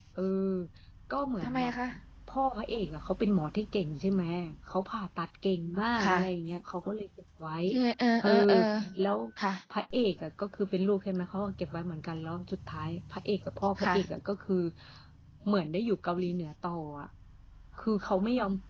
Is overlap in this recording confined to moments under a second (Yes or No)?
Yes